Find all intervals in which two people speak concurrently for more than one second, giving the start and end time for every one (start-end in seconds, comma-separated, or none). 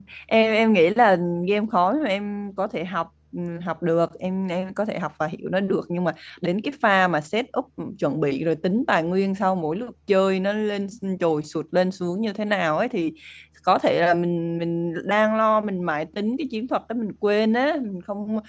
none